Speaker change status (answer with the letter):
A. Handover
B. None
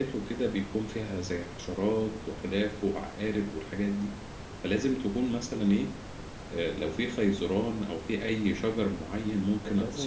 A